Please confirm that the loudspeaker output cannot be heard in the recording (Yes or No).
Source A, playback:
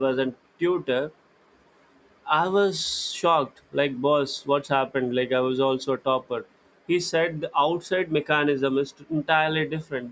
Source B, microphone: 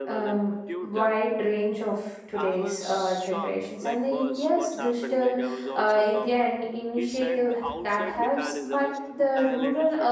No